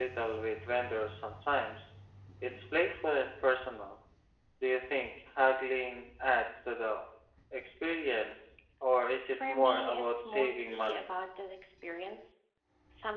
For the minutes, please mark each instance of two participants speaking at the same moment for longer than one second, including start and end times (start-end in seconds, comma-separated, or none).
9.3-11.1